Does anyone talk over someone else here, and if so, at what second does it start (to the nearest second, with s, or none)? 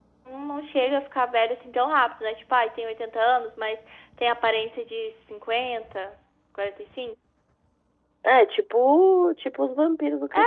none